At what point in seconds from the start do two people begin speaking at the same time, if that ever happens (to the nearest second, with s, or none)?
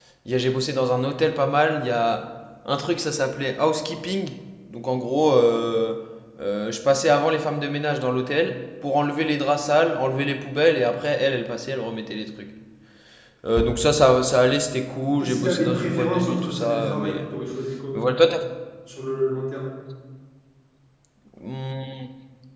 15 s